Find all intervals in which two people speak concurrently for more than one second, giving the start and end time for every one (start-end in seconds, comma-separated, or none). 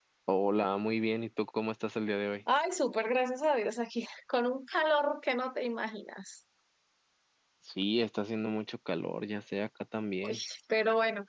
none